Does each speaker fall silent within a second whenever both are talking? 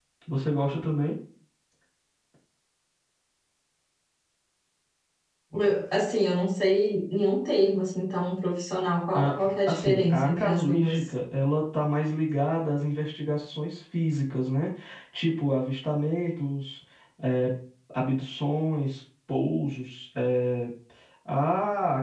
No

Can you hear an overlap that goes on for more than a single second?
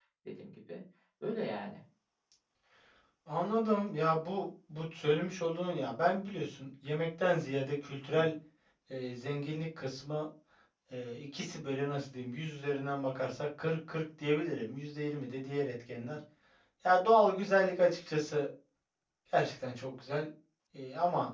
No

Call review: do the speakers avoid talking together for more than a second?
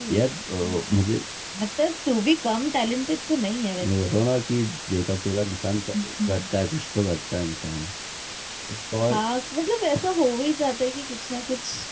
Yes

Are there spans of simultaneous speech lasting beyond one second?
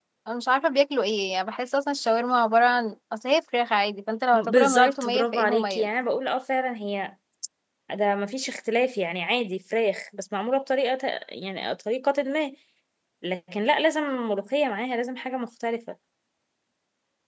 Yes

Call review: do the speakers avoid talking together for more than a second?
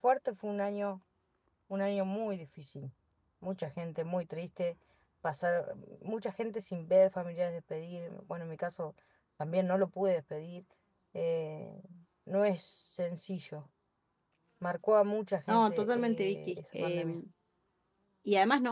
No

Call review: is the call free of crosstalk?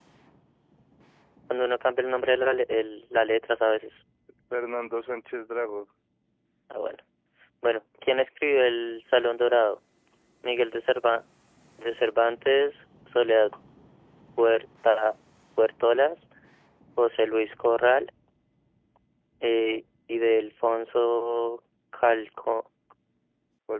Yes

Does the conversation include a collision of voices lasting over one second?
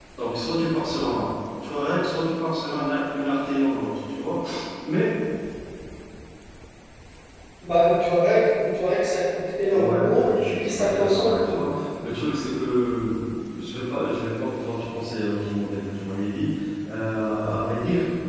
Yes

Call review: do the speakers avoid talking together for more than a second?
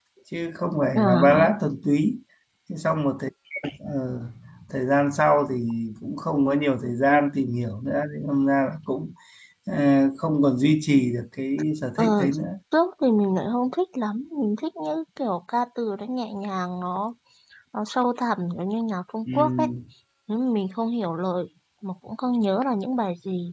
Yes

